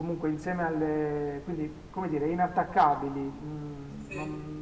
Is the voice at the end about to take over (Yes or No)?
No